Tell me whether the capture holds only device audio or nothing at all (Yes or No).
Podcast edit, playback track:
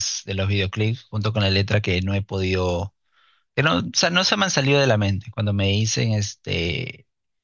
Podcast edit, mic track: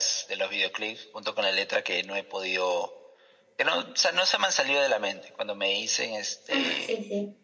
No